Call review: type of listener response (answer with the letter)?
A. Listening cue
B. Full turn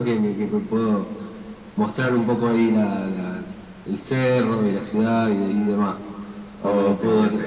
A